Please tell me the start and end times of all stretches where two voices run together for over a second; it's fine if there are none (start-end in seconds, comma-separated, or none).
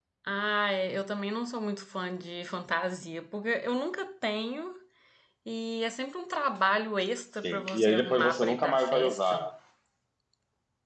7.4-9.4